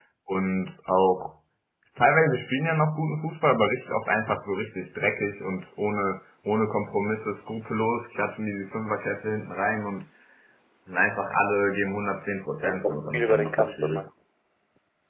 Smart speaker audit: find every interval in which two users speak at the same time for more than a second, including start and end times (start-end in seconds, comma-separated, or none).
12.6-14.1